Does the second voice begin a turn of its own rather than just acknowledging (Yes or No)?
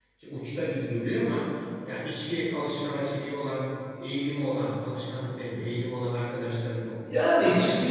Yes